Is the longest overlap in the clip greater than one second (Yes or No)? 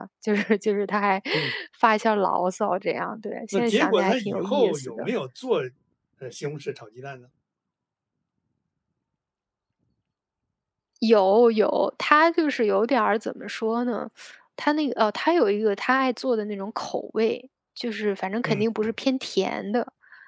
Yes